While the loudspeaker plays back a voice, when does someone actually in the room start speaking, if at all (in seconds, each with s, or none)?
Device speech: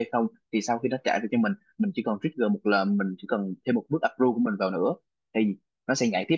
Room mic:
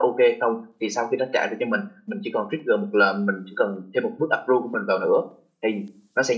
none